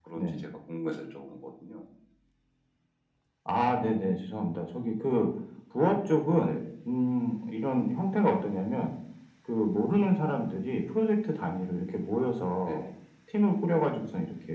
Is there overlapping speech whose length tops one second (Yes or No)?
No